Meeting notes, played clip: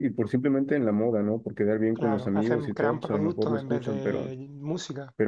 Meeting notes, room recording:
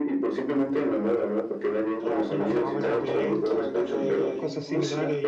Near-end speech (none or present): present